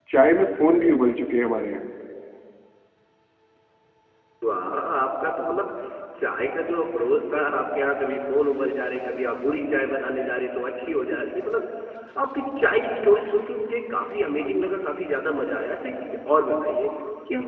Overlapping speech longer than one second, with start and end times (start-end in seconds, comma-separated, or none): none